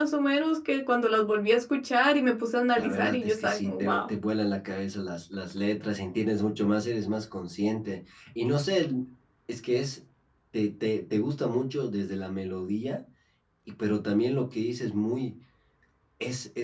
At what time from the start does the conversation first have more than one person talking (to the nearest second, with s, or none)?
3 s